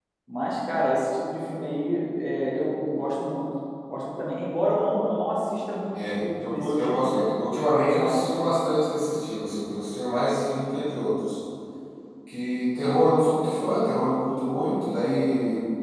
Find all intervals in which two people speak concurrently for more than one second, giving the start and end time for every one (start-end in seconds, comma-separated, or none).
5.9-7.2